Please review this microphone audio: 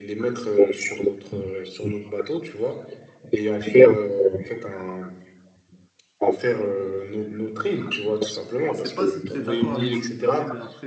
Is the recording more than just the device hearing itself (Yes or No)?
Yes